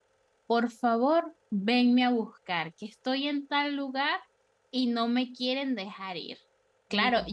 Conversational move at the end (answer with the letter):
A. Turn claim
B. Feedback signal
B